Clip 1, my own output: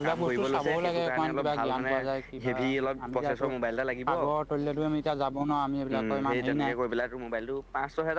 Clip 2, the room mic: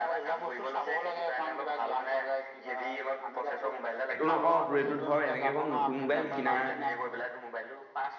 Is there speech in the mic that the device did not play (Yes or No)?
Yes